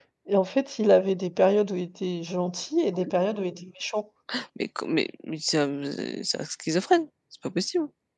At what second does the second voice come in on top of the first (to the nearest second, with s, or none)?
none